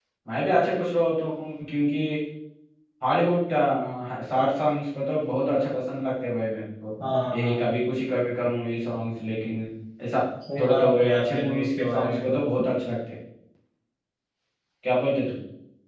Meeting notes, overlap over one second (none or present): present